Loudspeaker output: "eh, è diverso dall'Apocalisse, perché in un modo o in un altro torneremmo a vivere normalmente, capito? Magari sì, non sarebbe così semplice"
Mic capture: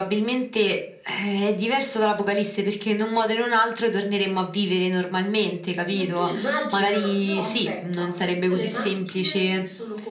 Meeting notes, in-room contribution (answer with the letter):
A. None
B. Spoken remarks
B